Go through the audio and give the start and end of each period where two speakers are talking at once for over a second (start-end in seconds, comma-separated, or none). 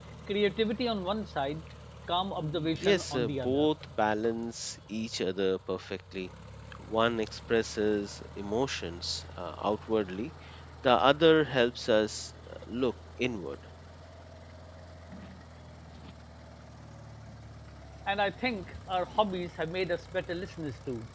2.4-3.7